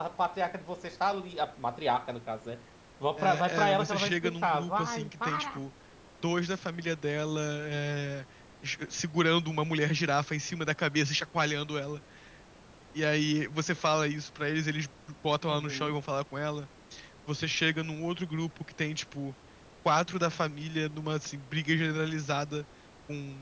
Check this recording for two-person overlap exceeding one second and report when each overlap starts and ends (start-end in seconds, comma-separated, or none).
3.2-5.6